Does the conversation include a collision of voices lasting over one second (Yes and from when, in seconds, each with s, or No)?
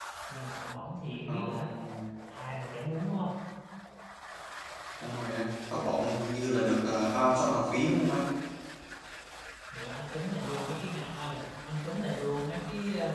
No